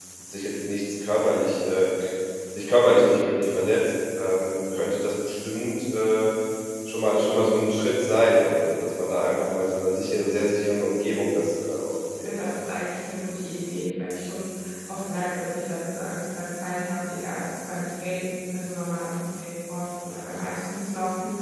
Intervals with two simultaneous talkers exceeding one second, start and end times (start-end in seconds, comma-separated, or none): none